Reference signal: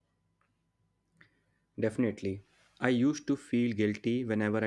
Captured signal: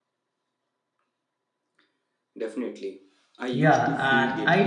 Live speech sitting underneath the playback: No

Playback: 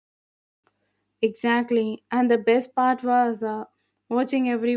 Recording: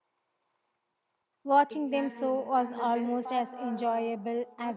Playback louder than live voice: No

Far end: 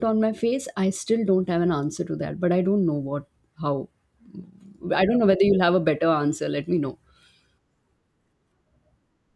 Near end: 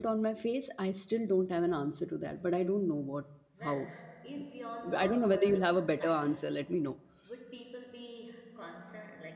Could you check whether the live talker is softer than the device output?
Yes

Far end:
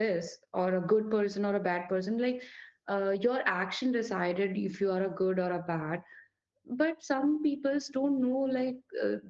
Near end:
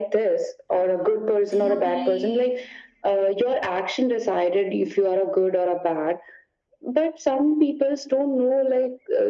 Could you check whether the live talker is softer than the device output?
Yes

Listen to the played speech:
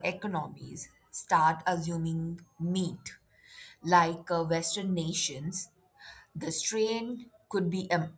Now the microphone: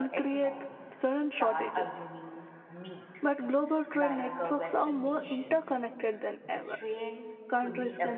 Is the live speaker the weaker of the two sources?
No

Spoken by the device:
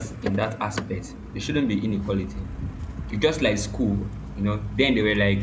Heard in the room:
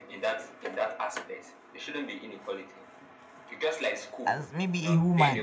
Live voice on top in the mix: Yes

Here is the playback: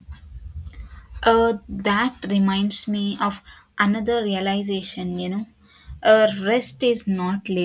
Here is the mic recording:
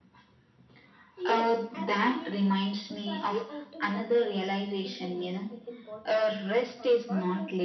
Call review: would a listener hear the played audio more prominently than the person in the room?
Yes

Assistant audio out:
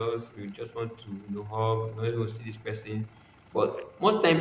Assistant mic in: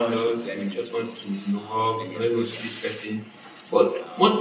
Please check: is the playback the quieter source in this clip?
No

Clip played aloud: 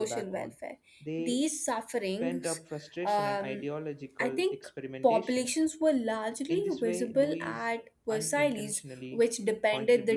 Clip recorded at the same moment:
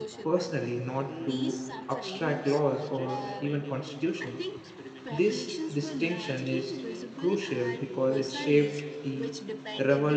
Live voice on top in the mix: Yes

